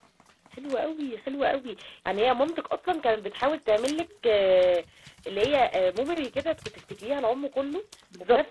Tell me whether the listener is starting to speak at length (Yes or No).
Yes